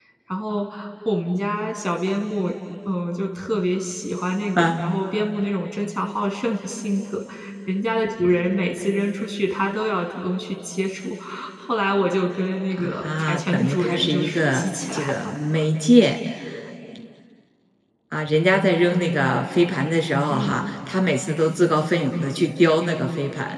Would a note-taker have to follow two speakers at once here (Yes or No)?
Yes